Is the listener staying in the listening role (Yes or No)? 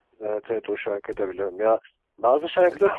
No